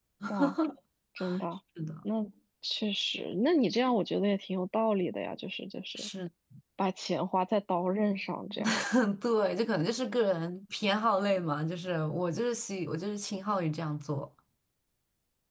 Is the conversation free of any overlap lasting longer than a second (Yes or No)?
Yes